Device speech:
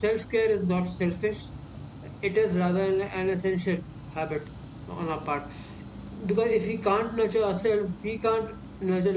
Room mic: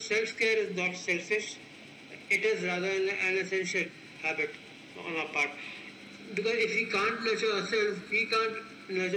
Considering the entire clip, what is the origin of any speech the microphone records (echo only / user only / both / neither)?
echo only